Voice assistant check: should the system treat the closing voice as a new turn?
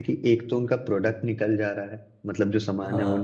No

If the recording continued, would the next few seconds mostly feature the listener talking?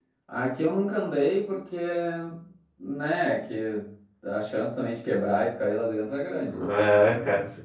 Yes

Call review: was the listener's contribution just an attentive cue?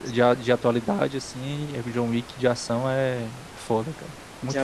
No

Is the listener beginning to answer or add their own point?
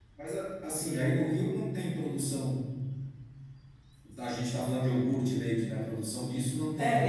Yes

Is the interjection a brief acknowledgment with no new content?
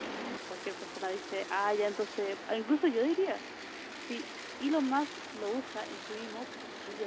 No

